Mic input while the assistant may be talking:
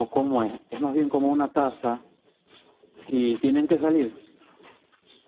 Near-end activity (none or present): none